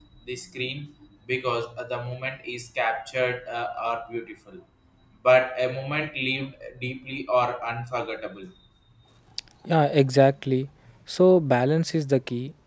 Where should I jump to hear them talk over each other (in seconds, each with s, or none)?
none